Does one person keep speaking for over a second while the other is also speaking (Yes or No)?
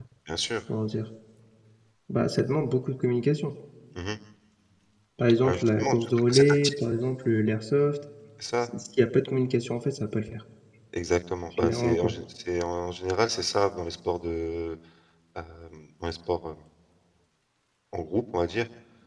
Yes